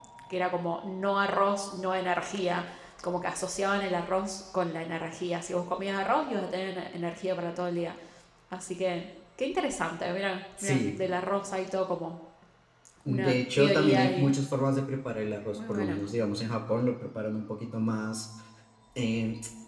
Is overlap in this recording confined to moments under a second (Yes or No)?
No